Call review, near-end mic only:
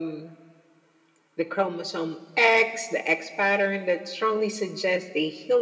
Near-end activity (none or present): none